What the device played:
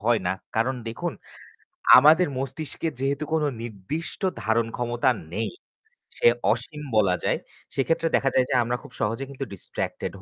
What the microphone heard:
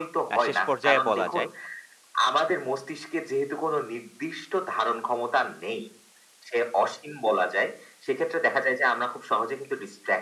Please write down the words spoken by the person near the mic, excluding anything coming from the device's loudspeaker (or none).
আ শেষ পর্যায়ে বলা যায়।